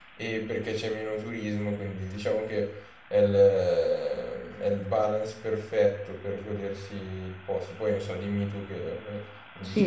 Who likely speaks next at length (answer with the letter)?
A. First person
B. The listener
B